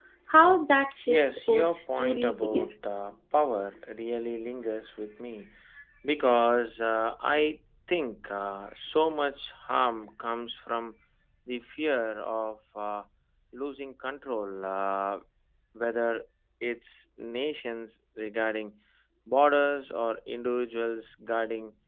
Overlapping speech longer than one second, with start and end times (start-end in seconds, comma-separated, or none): 1.1-2.8